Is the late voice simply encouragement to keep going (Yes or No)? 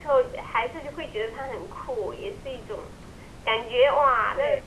Yes